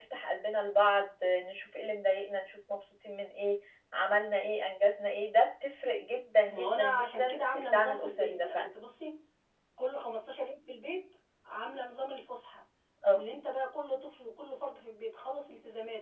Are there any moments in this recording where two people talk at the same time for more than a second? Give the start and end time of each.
6.5-8.7

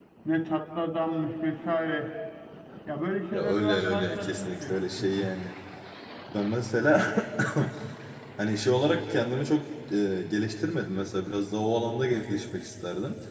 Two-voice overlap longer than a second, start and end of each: 3.3-5.3

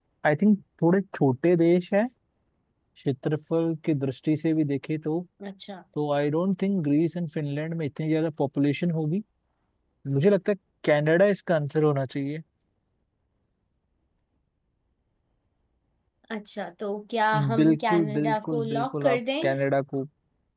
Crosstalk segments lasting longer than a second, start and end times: 17.5-19.5

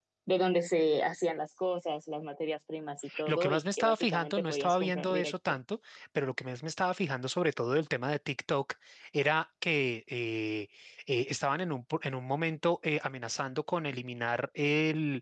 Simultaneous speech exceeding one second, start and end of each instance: 3.2-5.6

